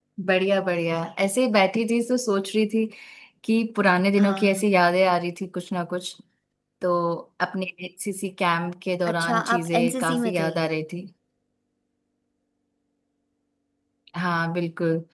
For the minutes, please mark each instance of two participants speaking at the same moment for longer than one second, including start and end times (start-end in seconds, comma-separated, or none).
9.1-10.5